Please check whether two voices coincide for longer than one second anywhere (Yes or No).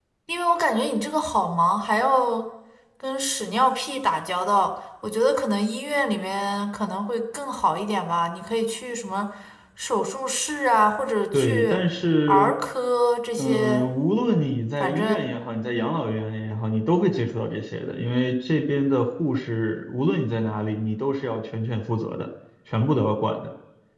No